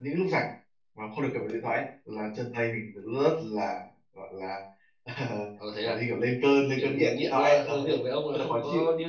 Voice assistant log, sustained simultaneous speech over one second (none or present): present